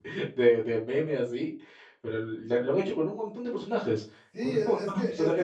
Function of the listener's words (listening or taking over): taking over